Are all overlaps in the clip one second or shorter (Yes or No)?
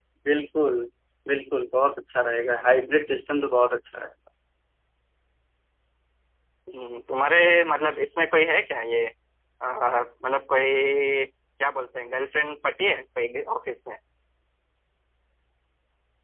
Yes